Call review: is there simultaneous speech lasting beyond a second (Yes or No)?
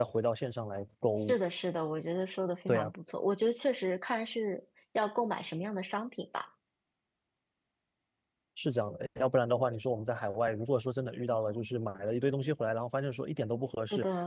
No